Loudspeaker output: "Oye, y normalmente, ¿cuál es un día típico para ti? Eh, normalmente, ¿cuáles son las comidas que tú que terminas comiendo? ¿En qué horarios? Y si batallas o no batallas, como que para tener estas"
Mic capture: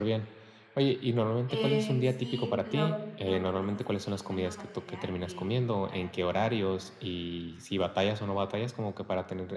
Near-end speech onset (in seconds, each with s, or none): 1.5 s